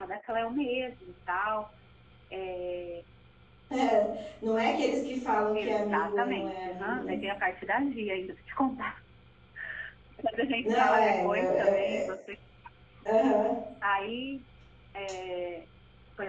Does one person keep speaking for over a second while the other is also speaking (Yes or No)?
Yes